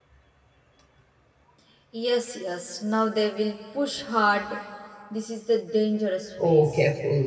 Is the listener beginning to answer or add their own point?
Yes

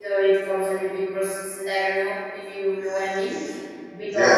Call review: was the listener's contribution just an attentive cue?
Yes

